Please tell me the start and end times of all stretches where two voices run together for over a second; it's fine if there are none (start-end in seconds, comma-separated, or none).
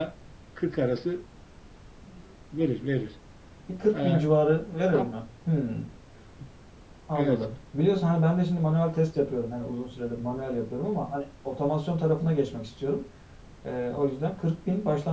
none